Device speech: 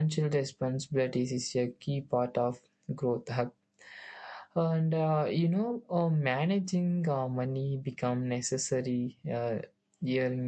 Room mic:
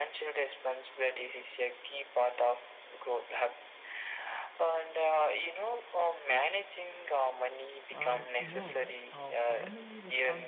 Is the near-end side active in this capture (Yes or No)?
Yes